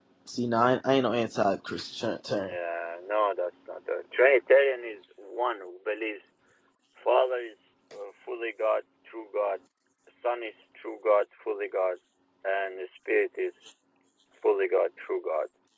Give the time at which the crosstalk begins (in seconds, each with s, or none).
none